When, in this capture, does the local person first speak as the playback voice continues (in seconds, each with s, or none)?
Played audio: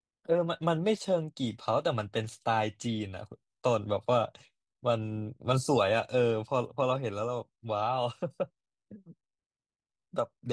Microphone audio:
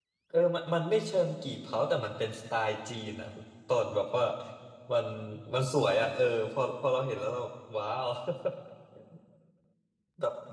none